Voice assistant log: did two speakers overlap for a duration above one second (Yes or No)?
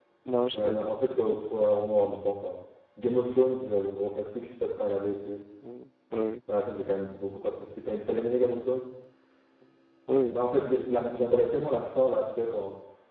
No